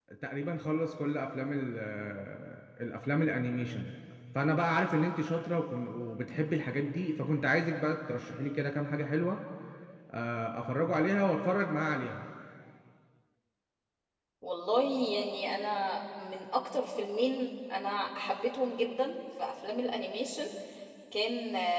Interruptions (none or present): none